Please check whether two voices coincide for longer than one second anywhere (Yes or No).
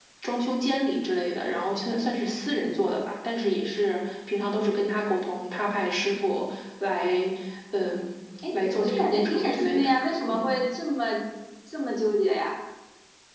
Yes